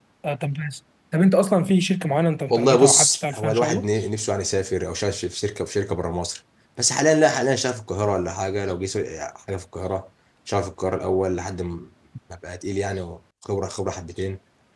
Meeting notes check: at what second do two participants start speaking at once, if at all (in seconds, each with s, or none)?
2.5 s